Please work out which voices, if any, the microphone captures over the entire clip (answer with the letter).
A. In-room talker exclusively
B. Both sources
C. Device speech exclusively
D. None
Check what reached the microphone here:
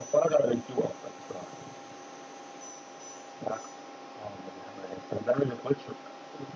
C